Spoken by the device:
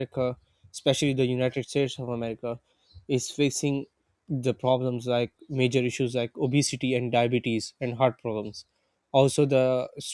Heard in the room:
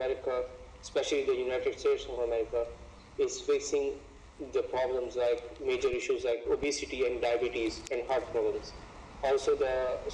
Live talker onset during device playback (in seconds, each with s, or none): none